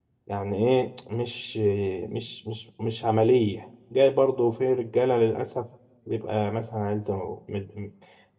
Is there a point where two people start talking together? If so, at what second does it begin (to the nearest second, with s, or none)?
none